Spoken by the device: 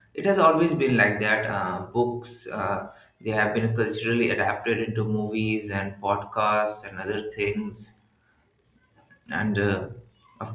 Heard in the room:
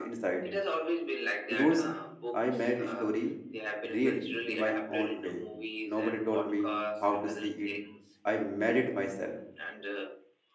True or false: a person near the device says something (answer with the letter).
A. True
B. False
A